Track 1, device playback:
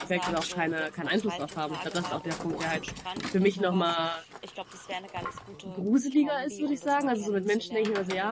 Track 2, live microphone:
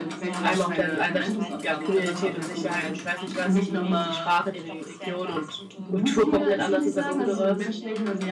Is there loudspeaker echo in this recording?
Yes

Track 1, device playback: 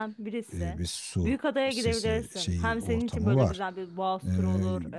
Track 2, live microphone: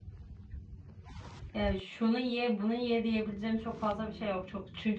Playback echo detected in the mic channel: No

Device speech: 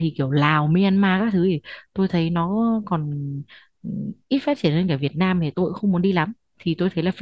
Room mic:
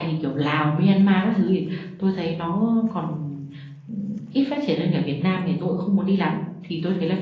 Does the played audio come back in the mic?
Yes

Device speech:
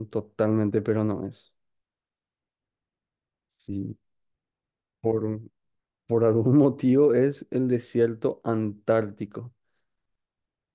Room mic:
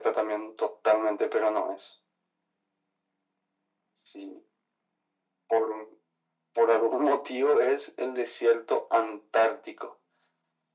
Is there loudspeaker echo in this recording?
Yes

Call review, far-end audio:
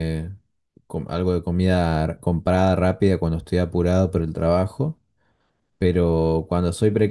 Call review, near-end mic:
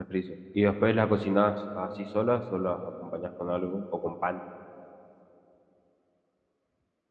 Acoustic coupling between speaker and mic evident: No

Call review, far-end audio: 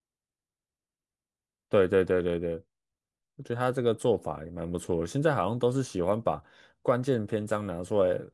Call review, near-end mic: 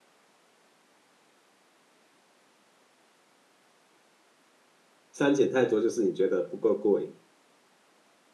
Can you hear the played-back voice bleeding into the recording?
No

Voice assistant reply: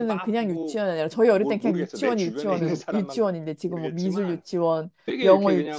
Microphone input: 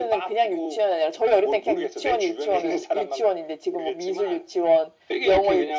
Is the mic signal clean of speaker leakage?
No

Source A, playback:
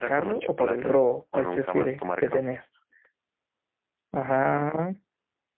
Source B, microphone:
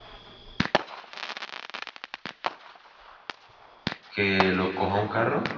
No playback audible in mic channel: Yes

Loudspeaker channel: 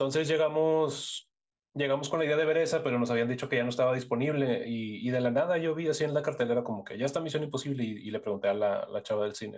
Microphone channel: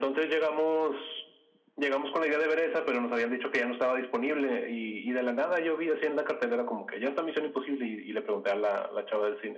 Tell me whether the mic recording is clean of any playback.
No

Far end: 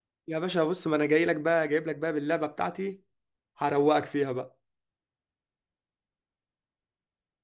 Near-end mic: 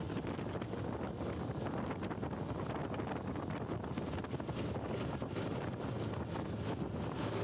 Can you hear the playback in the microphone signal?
No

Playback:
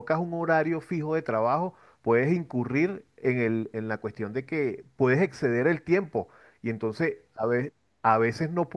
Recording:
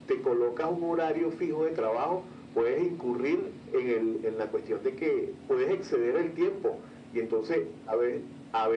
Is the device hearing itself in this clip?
Yes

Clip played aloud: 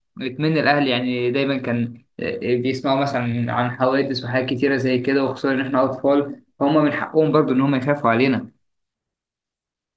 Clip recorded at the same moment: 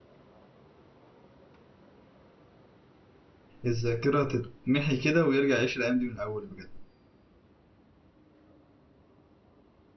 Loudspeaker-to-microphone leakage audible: No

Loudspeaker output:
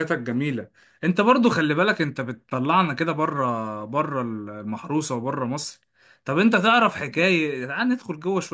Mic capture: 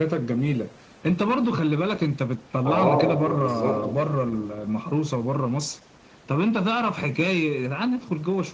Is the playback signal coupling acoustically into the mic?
Yes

